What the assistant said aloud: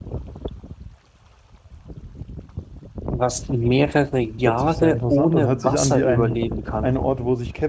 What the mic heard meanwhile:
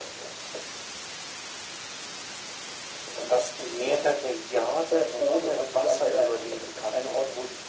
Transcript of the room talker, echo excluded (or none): none